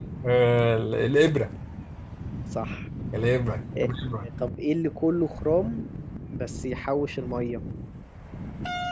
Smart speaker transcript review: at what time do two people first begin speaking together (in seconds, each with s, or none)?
none